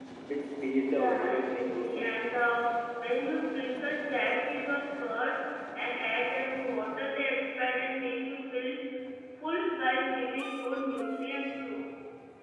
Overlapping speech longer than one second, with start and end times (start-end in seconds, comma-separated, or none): 0.9-2.2